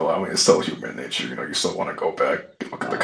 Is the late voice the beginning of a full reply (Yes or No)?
Yes